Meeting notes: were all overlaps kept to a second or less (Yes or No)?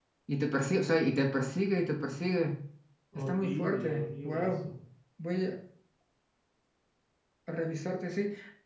No